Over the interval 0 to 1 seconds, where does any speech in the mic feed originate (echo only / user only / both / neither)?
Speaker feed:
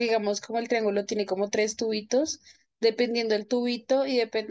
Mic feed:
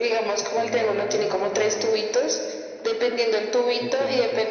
both